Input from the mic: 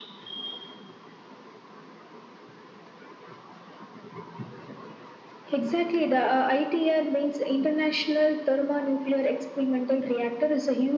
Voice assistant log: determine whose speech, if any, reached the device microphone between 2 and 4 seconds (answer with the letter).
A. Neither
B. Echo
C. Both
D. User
A